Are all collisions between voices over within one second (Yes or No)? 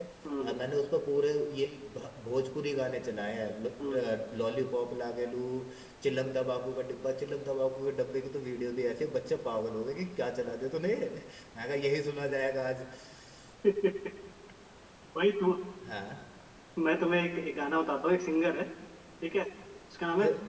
Yes